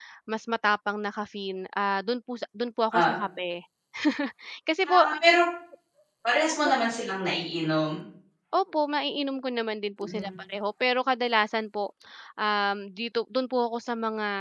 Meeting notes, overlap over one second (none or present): none